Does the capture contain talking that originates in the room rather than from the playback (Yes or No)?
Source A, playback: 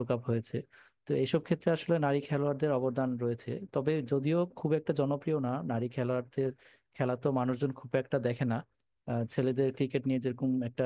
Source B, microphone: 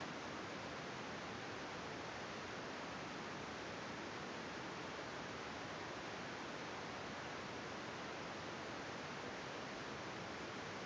No